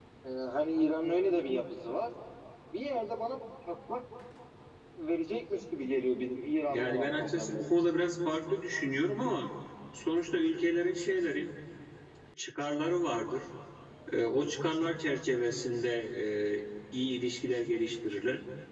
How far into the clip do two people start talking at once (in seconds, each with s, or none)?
6.7 s